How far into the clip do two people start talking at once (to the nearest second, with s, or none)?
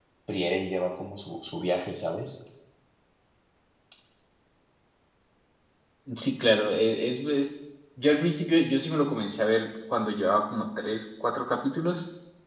none